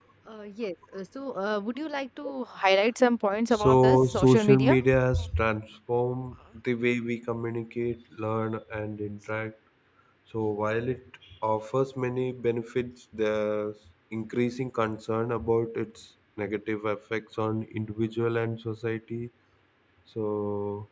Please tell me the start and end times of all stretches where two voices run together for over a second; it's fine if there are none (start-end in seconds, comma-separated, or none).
3.5-4.8